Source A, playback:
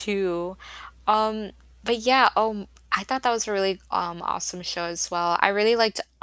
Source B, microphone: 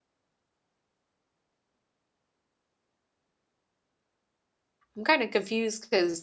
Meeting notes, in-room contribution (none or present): present